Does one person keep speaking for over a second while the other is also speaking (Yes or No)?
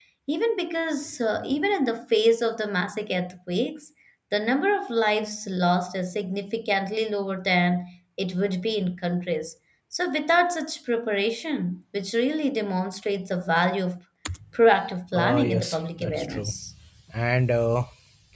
Yes